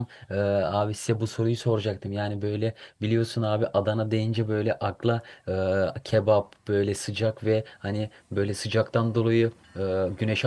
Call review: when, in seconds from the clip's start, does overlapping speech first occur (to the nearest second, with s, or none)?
none